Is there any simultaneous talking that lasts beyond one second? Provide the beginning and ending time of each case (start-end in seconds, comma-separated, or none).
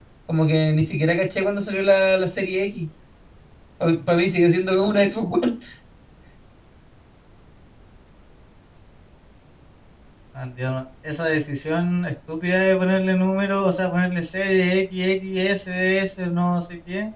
none